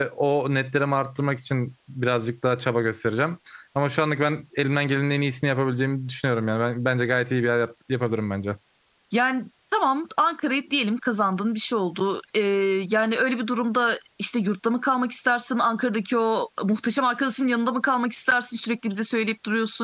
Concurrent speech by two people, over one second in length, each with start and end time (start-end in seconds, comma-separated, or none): none